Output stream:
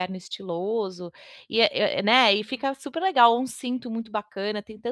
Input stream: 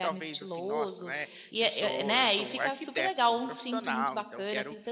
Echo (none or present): present